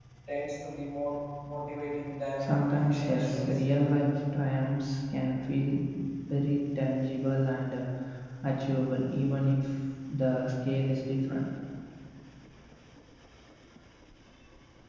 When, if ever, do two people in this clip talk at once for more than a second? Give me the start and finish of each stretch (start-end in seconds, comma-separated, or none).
2.4-3.9